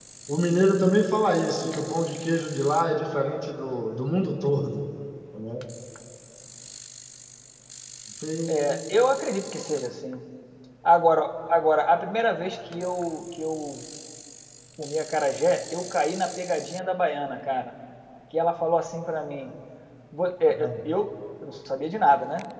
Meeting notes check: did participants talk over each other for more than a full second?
No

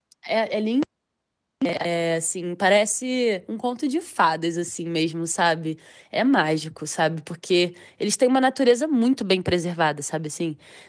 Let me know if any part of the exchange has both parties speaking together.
No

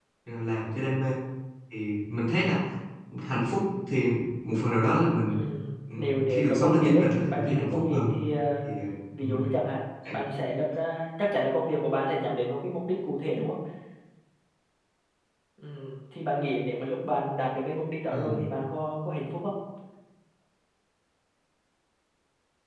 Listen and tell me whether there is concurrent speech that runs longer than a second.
Yes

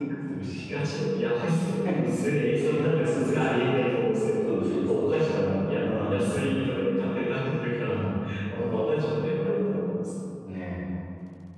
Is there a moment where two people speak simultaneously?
Yes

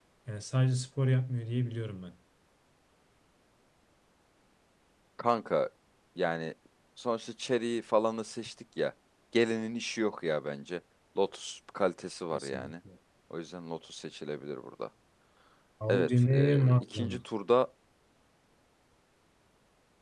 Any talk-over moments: Yes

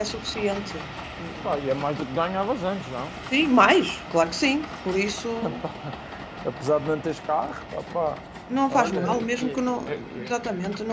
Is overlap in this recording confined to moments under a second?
No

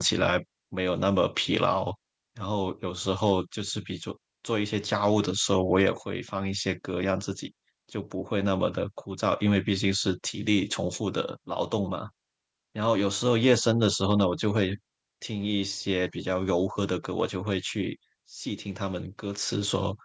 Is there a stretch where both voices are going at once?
No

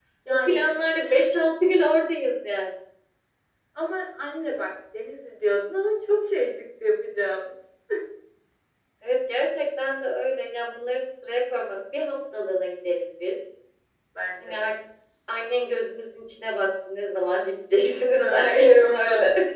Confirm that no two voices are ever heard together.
No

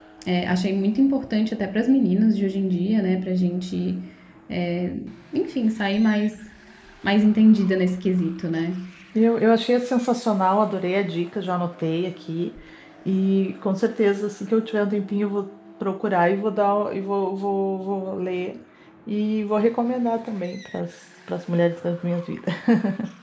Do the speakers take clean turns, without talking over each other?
Yes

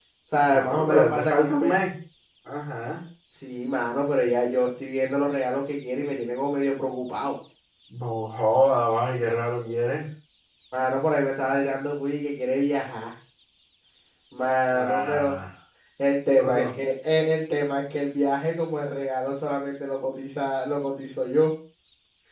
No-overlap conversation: No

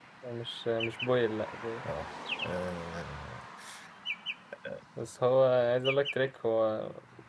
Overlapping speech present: No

